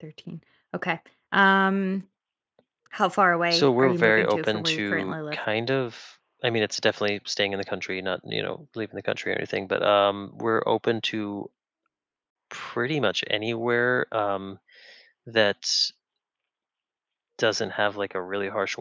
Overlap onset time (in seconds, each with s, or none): 3.5 s